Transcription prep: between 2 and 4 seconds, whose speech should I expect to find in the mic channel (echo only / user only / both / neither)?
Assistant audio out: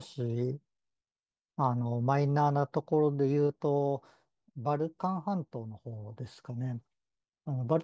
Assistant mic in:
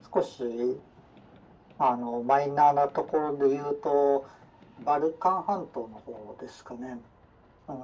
echo only